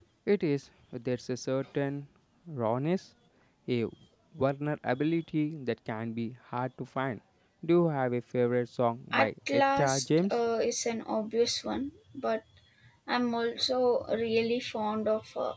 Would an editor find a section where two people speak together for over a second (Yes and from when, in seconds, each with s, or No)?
Yes, from 9.1 s